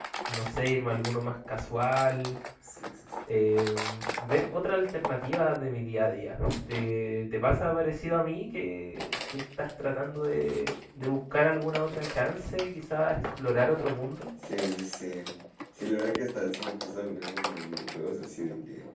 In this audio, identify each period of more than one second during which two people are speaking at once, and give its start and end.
none

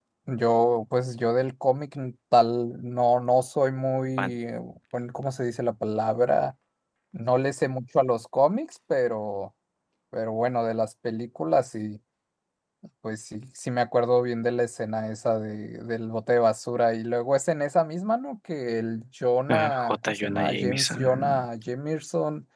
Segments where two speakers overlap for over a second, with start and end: 19.5-21.4

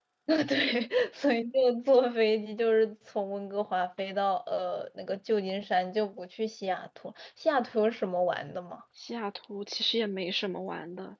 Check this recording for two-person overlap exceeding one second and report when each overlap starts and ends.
none

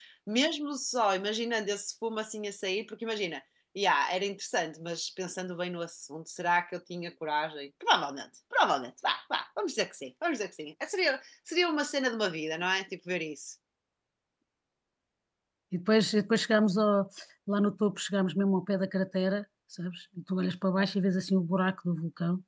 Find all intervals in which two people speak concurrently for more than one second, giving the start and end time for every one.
none

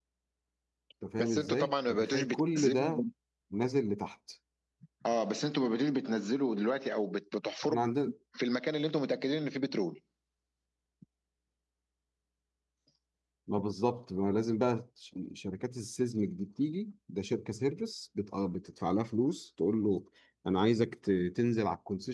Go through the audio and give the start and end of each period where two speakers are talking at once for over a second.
1.2-3.0

